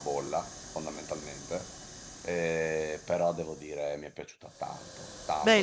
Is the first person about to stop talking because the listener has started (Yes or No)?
Yes